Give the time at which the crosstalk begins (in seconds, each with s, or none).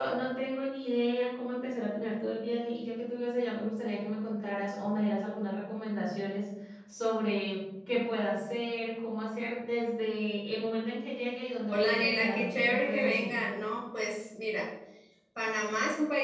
11.7 s